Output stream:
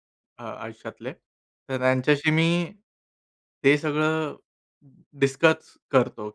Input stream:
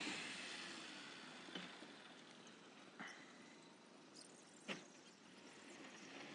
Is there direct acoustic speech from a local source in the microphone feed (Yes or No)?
No